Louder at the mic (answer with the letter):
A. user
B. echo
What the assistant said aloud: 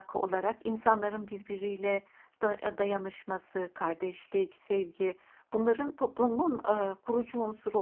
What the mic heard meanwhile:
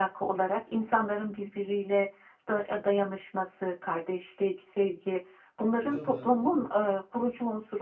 B